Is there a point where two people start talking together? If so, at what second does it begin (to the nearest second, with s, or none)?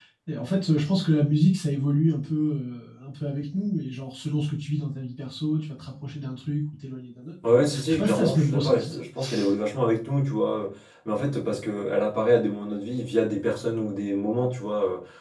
7 s